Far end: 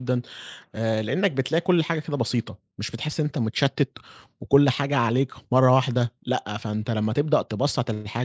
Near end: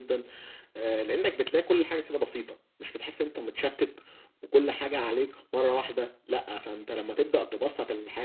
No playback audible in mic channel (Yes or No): No